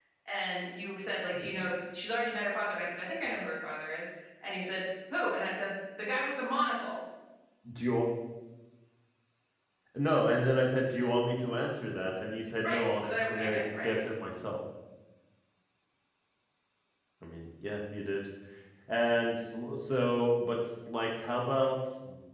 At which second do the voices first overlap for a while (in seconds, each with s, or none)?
12.6 s